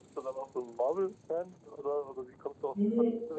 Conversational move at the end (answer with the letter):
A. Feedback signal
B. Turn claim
B